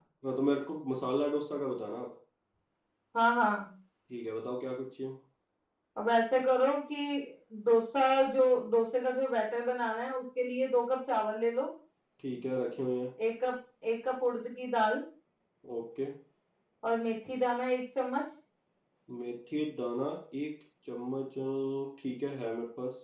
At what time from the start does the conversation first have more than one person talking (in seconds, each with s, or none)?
none